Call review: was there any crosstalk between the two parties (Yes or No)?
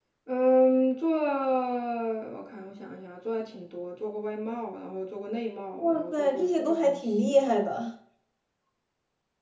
Yes